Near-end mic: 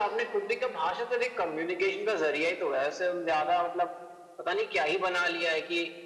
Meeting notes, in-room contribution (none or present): none